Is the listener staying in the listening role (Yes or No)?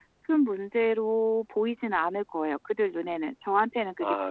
No